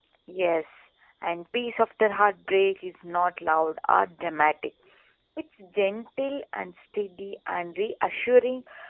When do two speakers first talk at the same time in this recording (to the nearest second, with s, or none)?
none